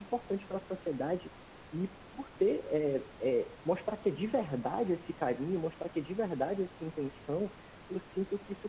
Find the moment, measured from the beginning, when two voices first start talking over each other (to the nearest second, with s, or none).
none